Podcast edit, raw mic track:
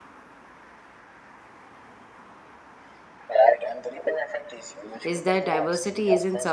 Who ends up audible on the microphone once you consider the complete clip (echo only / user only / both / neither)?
both